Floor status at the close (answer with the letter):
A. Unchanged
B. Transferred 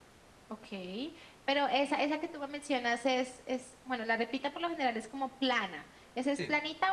A